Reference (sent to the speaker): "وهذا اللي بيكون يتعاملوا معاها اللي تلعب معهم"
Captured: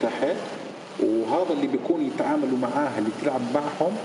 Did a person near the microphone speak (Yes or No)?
No